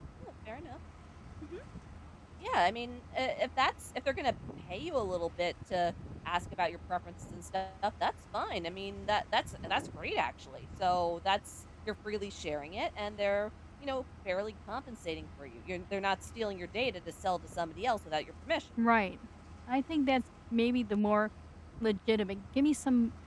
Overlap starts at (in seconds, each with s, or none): none